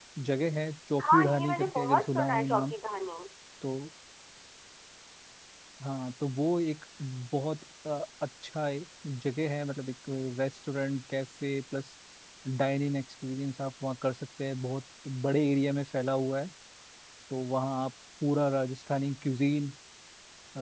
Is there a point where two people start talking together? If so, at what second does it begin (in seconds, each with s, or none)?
1.0 s